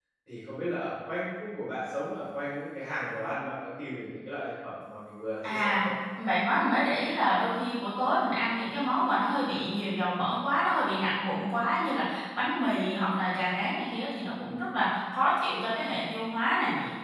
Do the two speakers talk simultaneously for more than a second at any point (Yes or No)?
No